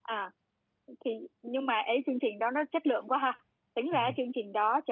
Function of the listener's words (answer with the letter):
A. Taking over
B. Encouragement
B